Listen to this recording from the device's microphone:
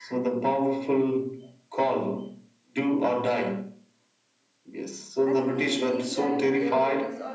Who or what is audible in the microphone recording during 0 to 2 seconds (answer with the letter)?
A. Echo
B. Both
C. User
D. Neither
A